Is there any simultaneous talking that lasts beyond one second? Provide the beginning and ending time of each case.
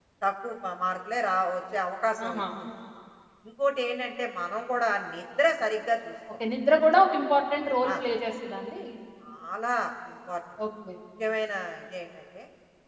none

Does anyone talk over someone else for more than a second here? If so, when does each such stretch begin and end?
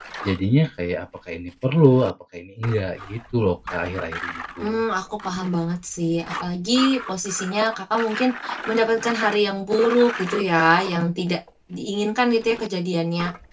none

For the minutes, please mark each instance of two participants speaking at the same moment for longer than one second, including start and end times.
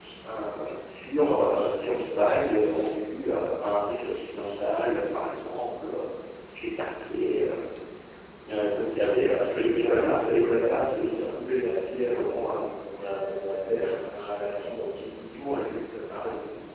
9.5-11.4

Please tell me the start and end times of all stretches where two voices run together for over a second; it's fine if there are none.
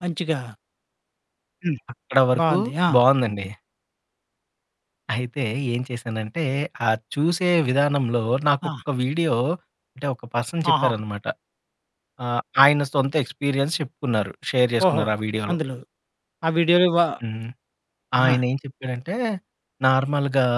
none

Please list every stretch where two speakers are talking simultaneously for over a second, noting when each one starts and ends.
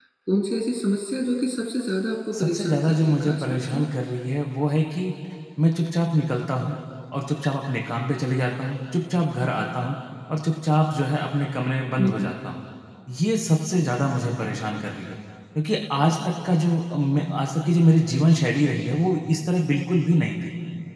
2.3-3.8

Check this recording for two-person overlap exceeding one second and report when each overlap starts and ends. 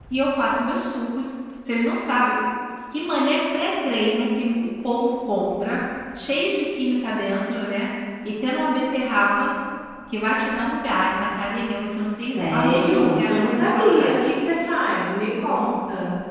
12.2-14.1

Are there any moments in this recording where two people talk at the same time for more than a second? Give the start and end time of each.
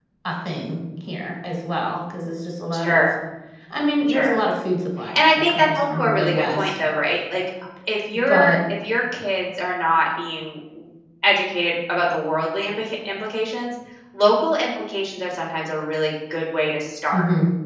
5.2-6.7

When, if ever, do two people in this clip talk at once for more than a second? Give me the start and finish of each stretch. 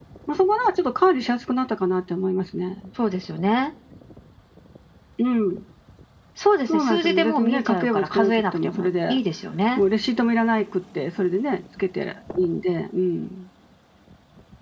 6.7-9.2

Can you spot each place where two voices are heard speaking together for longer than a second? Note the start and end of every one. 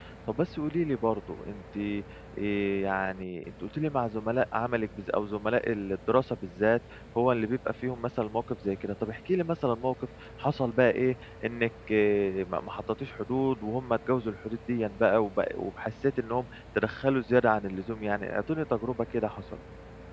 none

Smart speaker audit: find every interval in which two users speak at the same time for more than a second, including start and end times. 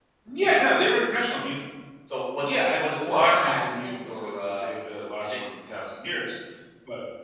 2.4-4.7

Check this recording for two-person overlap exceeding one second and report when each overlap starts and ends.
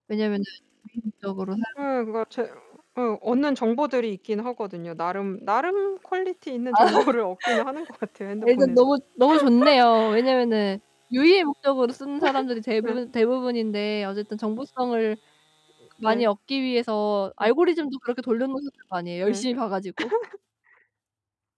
none

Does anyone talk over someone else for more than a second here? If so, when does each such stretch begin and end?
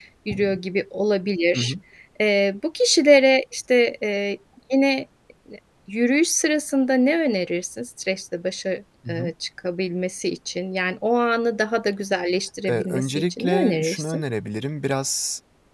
12.7-14.2

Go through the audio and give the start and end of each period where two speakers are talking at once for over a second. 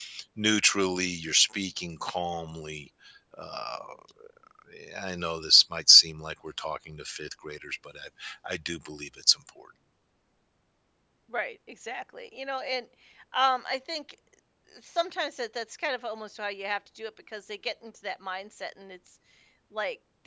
none

